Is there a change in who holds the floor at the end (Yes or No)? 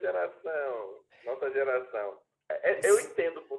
No